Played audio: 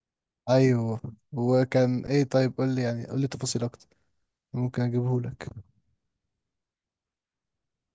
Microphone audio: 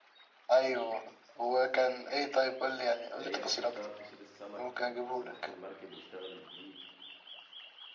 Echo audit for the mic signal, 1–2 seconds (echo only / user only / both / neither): echo only